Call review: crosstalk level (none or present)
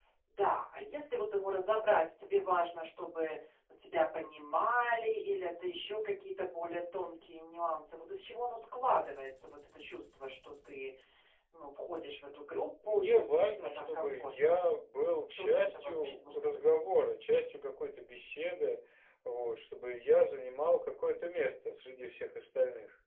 present